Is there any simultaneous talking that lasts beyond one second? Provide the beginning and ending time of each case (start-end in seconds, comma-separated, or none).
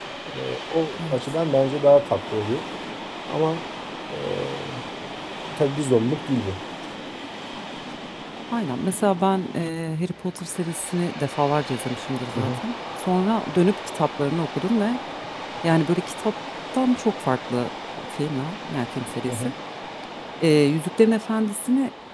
none